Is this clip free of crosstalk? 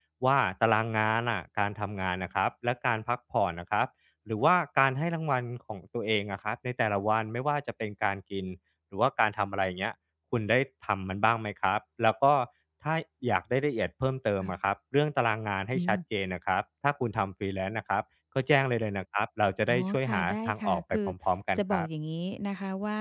No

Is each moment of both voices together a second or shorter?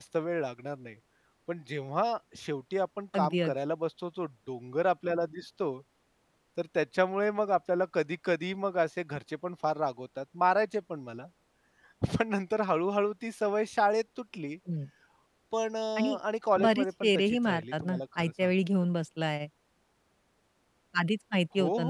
No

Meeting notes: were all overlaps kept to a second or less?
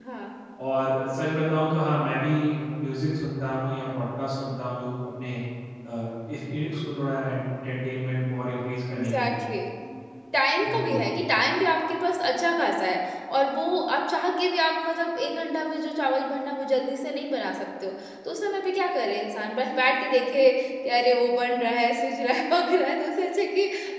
Yes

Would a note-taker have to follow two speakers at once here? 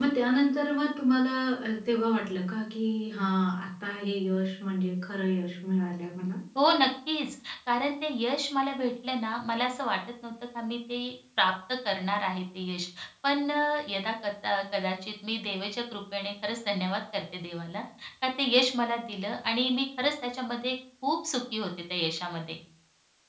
No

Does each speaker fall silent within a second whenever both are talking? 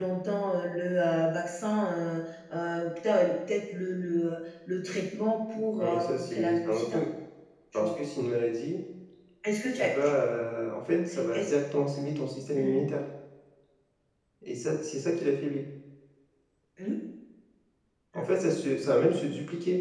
No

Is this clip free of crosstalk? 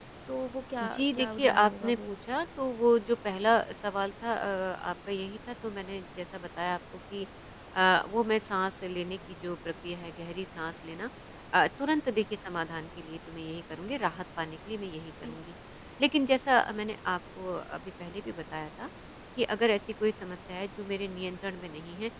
No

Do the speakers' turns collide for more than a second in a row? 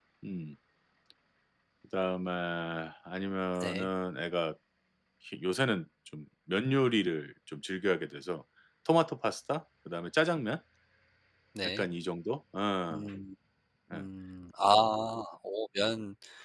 No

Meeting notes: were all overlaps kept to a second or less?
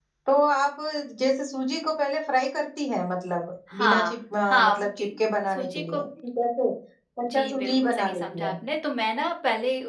No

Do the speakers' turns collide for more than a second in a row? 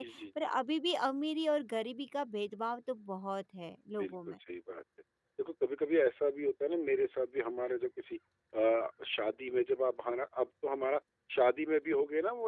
No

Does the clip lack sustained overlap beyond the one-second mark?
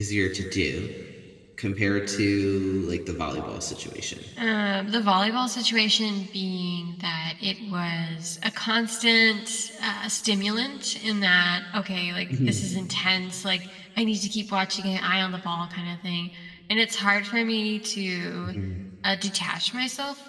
Yes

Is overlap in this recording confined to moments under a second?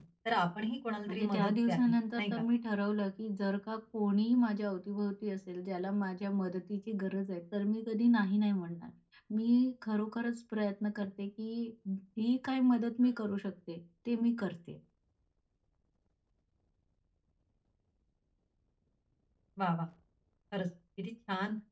No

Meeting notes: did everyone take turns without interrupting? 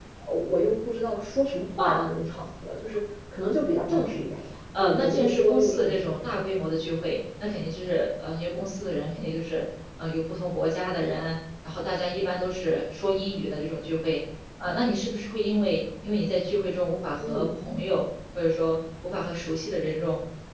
No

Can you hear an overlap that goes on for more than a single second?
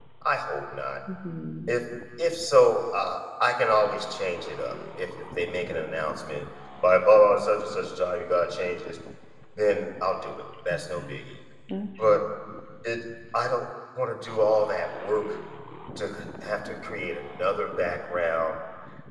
No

